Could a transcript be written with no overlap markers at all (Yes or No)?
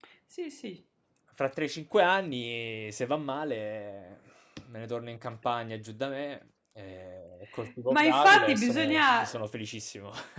No